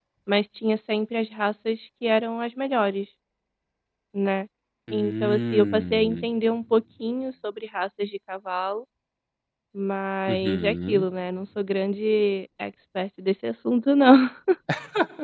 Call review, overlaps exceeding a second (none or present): present